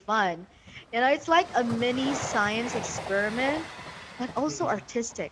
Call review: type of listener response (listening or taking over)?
listening